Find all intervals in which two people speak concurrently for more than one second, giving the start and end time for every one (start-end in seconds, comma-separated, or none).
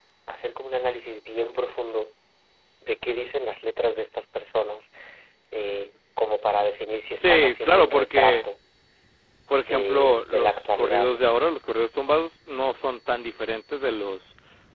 7.2-8.4, 9.6-11.3